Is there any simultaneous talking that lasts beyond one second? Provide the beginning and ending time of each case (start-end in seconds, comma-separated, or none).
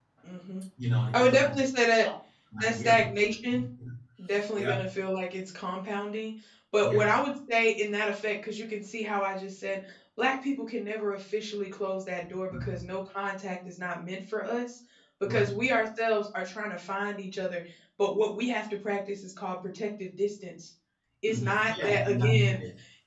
21.2-22.6